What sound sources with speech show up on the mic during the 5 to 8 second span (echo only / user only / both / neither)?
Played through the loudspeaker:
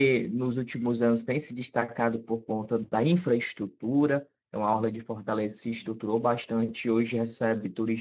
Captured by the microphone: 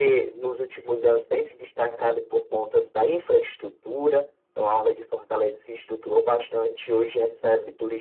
echo only